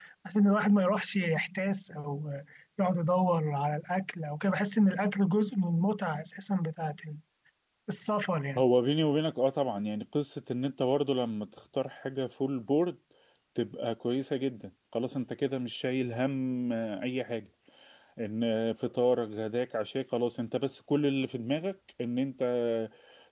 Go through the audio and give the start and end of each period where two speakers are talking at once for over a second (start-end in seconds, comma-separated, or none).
none